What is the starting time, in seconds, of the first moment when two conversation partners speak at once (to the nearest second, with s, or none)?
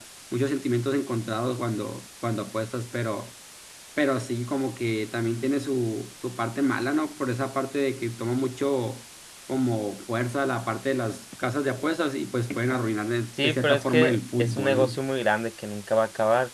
13 s